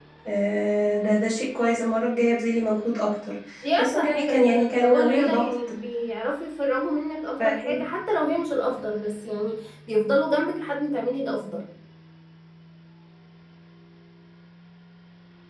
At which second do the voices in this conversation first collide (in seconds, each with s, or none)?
3.8 s